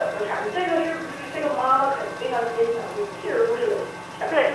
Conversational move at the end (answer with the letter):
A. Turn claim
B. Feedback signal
A